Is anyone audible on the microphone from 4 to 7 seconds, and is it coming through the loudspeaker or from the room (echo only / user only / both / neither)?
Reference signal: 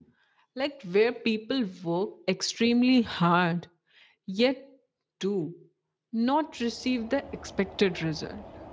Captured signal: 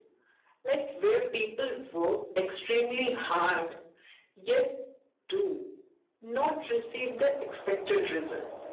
echo only